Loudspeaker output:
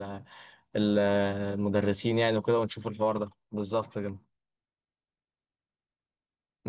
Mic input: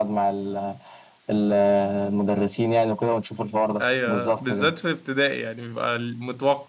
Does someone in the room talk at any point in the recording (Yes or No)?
Yes